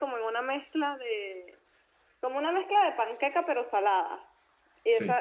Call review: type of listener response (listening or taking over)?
listening